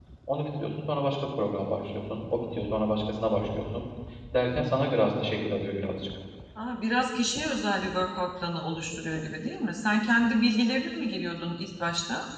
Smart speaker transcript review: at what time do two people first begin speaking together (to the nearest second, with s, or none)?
none